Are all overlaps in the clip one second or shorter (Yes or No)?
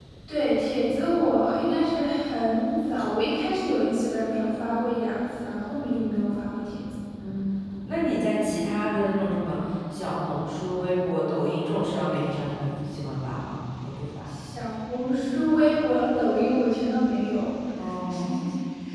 Yes